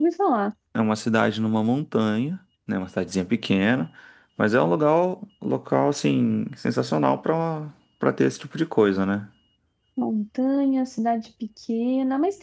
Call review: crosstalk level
none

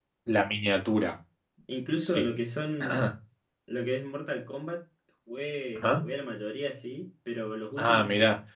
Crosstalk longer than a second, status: none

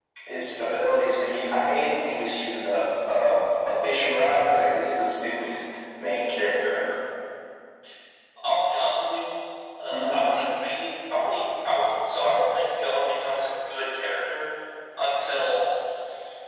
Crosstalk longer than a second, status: none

